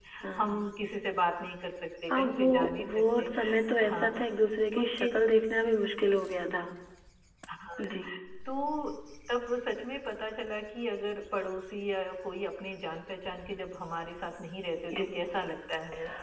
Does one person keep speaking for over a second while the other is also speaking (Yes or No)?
Yes